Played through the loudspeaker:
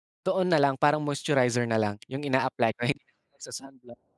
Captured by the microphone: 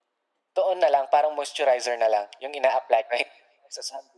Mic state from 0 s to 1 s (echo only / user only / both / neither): echo only